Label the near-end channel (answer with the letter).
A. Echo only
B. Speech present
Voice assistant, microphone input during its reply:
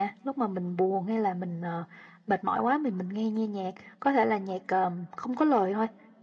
A